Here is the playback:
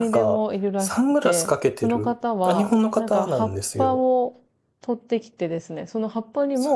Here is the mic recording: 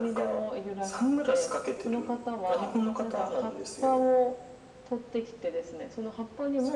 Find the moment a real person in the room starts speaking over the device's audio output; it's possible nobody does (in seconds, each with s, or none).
none